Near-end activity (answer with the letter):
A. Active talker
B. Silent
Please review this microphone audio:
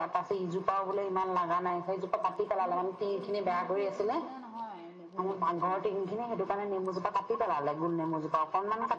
A